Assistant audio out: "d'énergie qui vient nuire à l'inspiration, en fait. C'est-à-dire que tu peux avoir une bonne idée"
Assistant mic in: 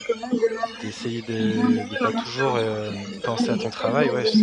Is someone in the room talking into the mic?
Yes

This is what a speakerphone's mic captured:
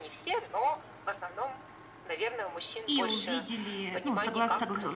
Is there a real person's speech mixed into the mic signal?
Yes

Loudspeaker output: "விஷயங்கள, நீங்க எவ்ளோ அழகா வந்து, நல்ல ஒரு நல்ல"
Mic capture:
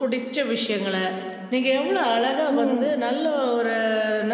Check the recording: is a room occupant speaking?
Yes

